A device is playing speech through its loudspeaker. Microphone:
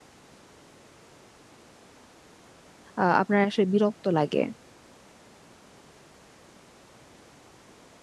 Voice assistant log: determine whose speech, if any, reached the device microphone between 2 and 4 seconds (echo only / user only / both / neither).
user only